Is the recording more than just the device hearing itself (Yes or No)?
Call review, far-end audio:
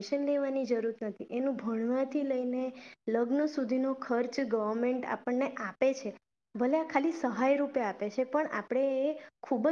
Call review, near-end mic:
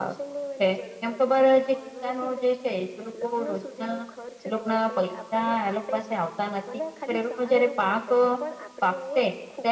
Yes